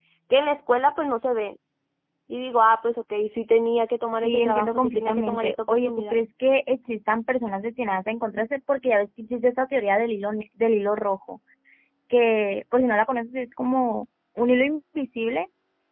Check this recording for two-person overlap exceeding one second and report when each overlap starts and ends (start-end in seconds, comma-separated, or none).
4.2-6.2